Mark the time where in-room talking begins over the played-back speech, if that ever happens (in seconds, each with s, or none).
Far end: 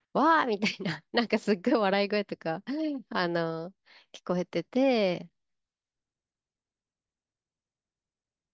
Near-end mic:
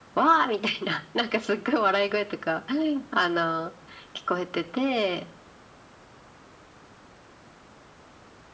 none